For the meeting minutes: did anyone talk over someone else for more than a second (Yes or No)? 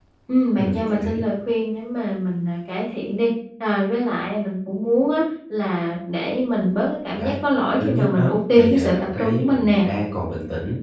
Yes